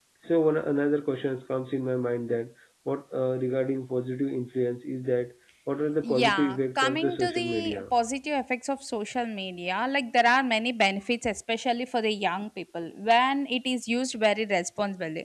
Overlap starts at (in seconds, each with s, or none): 6.0 s